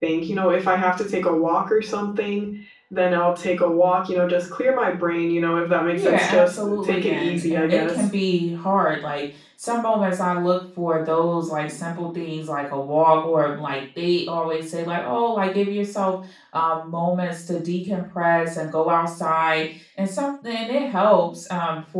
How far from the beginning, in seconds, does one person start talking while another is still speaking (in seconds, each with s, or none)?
5.9 s